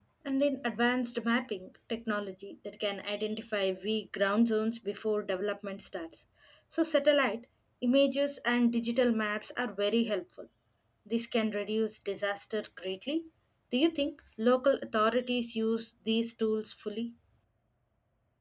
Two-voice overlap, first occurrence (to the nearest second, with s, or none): none